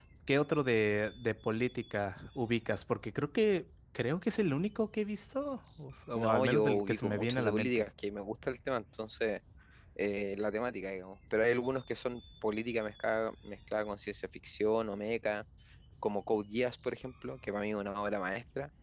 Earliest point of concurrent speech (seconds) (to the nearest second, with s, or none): 6 s